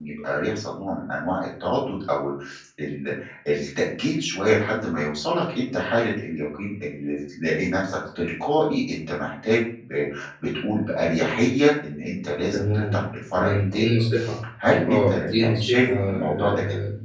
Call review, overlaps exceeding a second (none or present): present